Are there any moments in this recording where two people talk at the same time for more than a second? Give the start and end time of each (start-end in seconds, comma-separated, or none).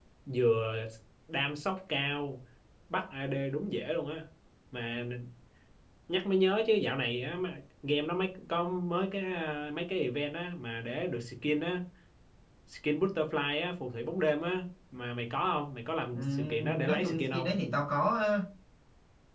16.1-17.5